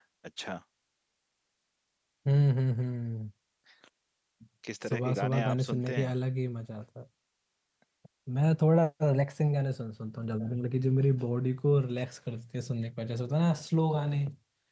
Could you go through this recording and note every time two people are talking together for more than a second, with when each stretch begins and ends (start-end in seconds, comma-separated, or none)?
4.9-6.1